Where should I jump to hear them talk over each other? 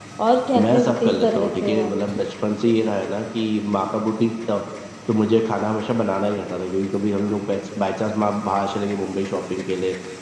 0.6 s

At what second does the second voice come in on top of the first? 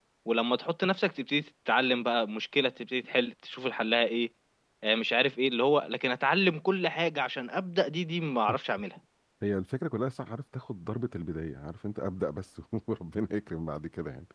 none

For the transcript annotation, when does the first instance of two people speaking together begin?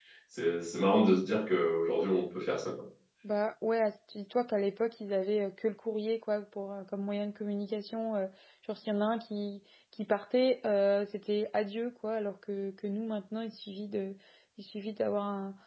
none

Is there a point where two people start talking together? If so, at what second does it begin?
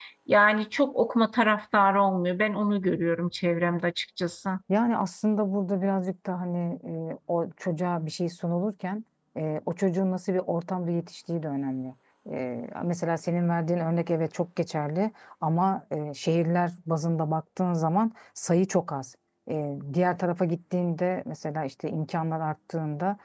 none

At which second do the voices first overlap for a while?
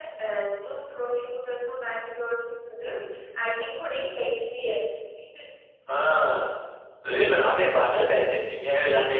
none

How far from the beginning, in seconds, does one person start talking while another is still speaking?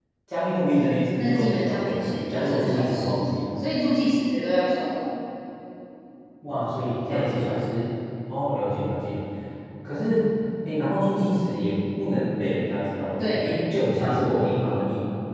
1.2 s

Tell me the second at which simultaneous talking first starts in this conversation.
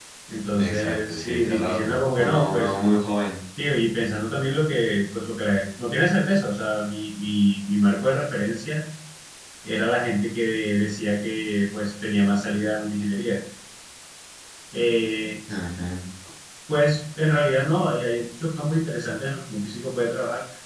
0.5 s

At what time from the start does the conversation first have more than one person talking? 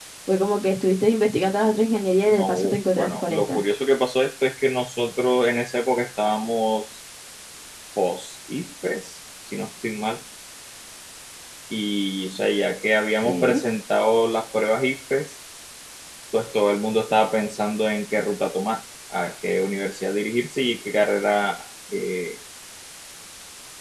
2.3 s

